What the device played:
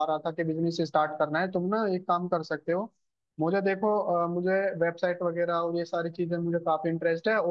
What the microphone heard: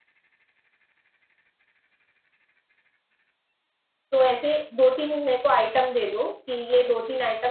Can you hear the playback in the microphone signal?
No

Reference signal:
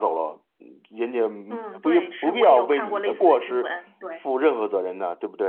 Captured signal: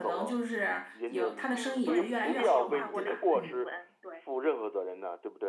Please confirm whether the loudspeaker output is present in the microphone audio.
Yes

